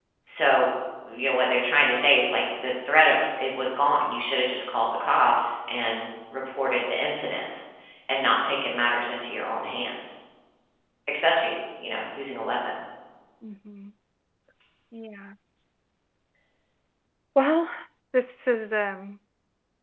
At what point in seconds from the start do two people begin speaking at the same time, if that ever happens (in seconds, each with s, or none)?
none